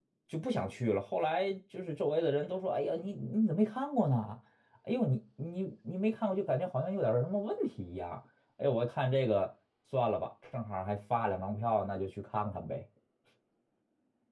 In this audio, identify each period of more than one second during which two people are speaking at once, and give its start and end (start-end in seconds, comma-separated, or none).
none